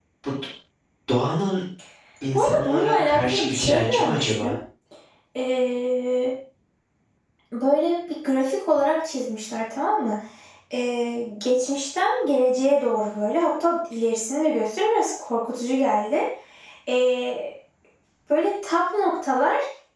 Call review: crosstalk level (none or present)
present